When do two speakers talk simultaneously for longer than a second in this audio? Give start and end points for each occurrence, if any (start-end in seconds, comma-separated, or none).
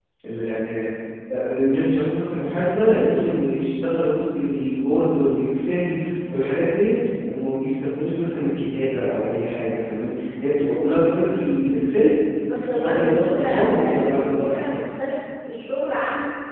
12.5-14.6